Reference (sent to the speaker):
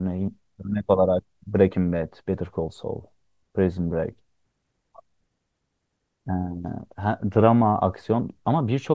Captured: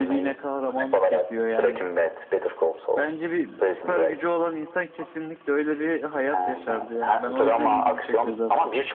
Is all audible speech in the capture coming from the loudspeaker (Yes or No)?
No